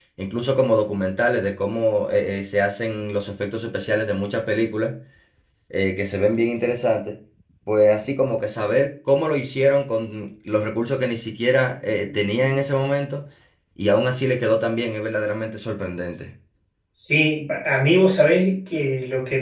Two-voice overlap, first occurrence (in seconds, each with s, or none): none